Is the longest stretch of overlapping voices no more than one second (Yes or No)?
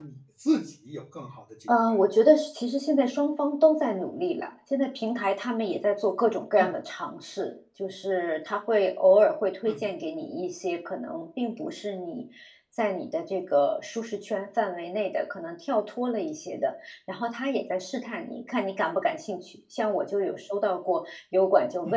Yes